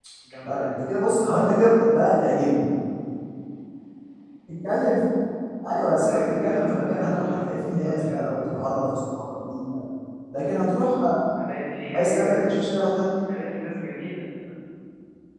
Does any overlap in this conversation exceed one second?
Yes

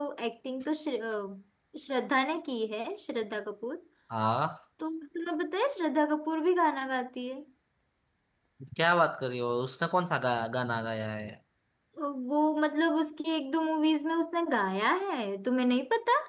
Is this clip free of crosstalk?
Yes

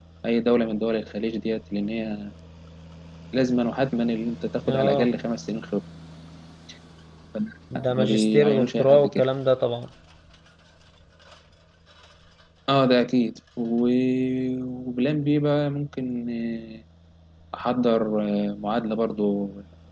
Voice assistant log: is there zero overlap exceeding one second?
No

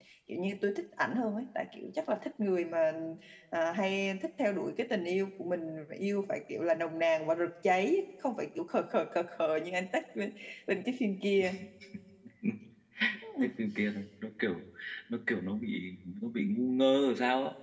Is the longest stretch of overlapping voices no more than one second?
Yes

